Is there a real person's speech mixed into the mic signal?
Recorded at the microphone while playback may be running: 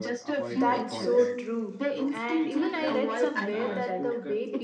Yes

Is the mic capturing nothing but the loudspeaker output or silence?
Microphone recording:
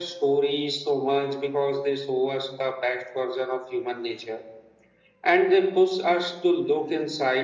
Yes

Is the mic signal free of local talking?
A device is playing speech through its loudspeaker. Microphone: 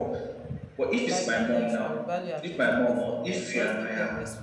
No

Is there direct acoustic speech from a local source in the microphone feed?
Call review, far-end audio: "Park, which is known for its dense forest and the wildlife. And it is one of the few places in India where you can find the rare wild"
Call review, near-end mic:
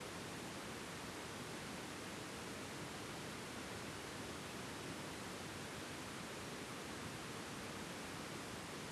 No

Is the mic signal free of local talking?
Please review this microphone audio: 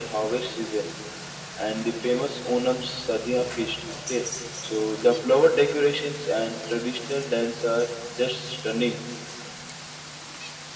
Yes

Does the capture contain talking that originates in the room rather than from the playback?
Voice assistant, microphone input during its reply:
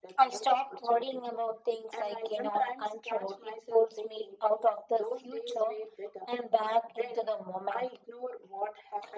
No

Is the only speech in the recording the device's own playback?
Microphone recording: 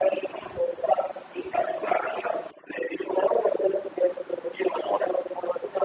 Yes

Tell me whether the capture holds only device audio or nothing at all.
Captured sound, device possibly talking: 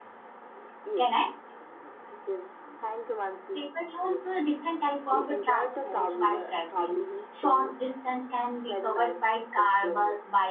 No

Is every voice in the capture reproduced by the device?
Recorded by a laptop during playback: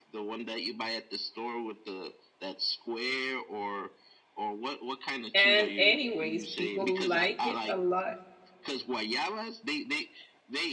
No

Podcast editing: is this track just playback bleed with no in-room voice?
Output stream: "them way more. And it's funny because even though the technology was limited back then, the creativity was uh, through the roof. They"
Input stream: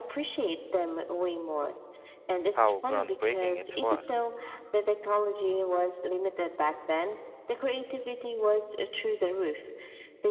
No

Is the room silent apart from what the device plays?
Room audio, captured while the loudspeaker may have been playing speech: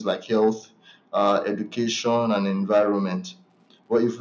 Yes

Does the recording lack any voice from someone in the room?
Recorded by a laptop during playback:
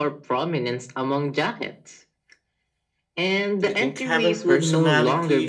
No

